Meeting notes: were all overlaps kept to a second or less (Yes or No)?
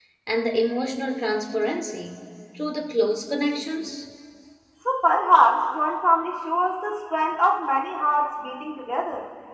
Yes